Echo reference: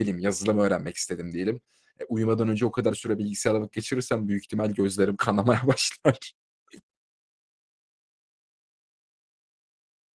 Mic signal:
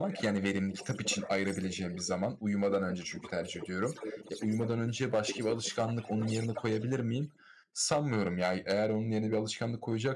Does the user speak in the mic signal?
Yes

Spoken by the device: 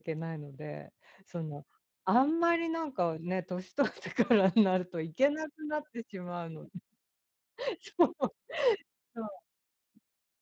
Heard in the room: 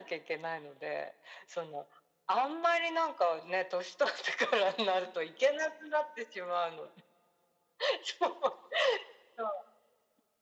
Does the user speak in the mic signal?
No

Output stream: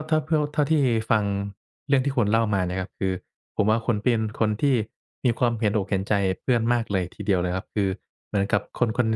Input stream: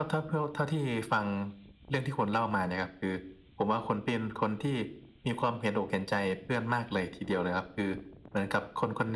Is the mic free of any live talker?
Yes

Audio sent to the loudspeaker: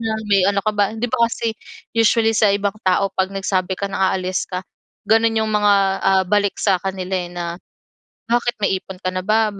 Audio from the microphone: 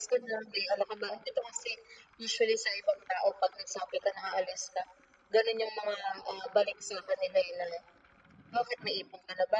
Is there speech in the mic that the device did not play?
No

